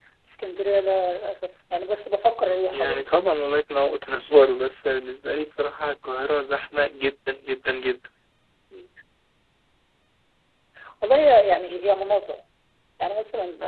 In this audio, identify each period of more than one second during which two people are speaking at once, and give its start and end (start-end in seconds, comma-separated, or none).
none